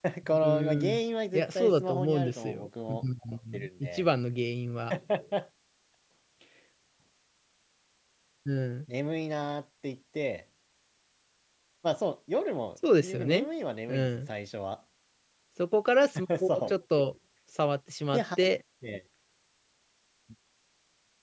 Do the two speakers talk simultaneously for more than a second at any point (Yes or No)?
Yes